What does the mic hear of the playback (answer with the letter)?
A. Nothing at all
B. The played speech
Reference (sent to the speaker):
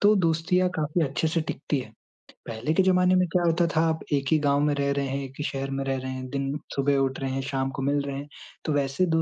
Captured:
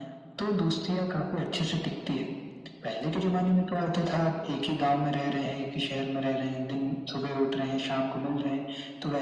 B